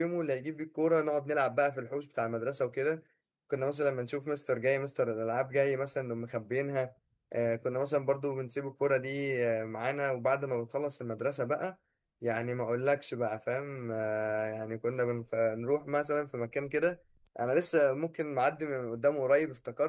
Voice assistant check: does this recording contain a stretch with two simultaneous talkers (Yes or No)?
No